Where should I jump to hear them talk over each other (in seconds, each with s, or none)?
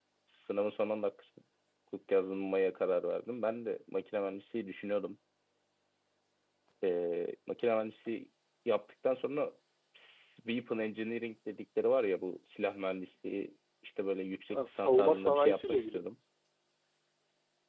14.5 s